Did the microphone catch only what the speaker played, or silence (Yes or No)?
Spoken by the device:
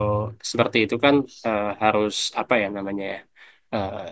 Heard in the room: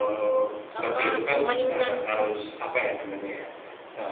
No